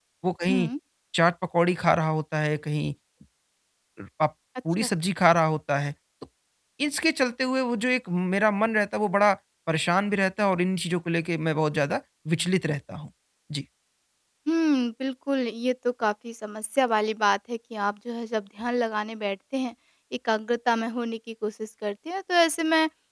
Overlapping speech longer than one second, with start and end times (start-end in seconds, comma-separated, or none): none